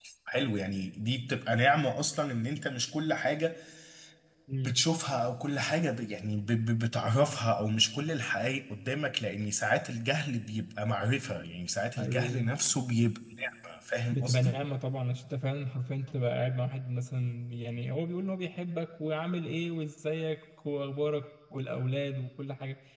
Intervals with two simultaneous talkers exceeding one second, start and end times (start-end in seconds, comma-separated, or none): none